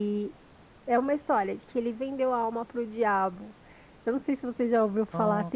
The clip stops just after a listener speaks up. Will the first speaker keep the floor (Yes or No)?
Yes